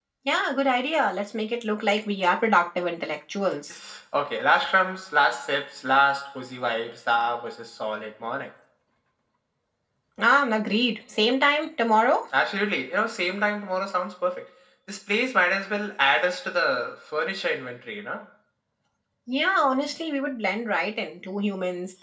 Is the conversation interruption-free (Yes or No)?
Yes